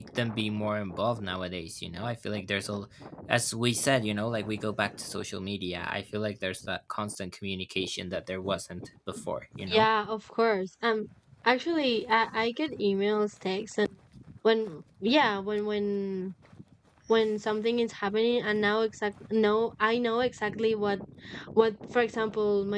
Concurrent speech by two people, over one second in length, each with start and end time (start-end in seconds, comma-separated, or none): none